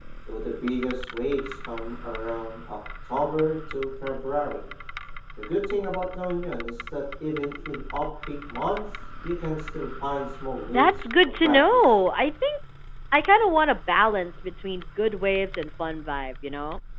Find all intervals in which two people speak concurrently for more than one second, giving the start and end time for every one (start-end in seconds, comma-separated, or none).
10.7-12.0